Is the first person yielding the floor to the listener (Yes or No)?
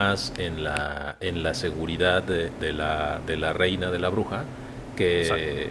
No